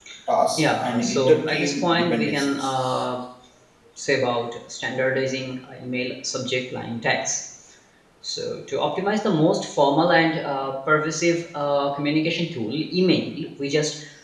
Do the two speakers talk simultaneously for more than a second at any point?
Yes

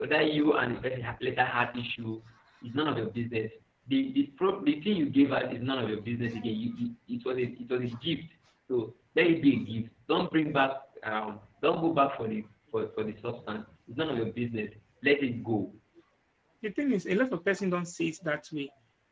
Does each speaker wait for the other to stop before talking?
Yes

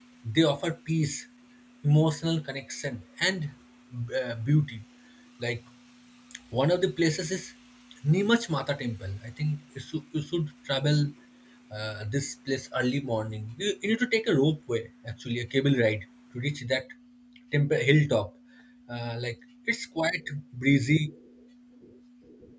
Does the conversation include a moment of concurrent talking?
No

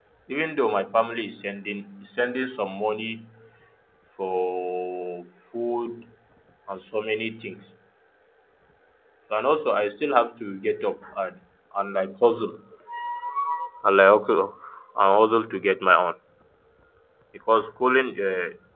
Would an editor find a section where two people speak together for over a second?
No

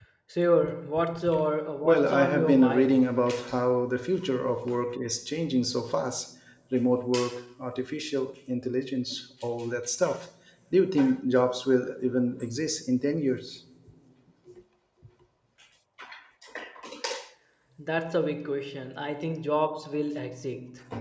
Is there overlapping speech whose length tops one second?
Yes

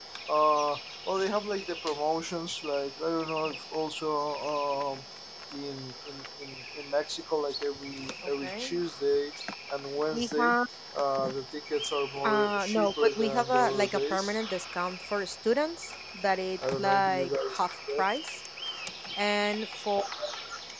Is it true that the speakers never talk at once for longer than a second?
No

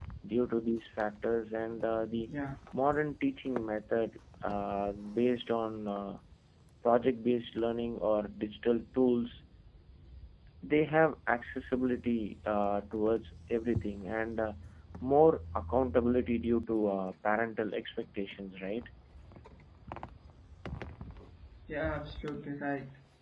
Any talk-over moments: No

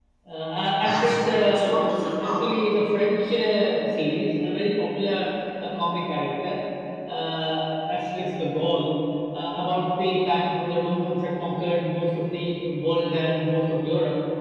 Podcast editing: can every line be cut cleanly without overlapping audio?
No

